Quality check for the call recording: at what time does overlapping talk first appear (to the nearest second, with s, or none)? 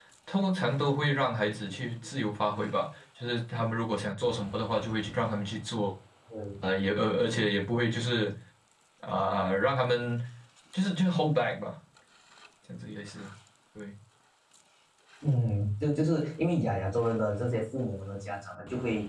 none